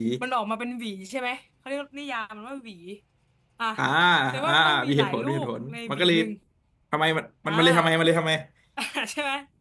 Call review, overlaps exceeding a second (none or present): present